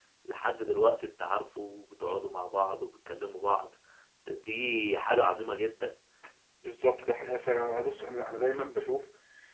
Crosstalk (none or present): none